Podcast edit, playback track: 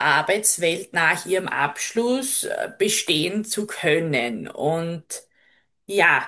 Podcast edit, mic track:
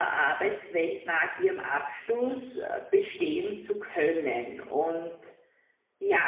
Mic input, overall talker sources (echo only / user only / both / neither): echo only